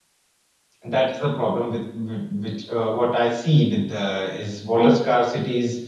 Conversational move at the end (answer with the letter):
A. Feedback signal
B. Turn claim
A